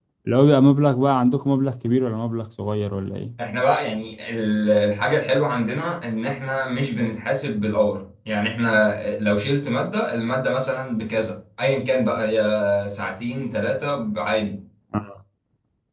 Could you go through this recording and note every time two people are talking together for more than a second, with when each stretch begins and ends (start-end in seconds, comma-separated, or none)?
none